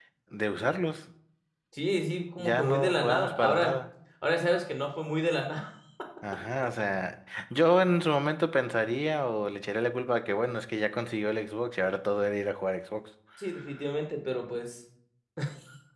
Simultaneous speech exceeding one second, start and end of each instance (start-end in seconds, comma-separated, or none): 2.4-3.7